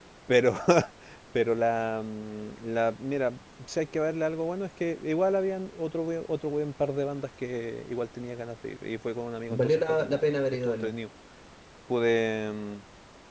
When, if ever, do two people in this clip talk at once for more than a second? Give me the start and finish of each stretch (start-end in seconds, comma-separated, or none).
9.5-11.0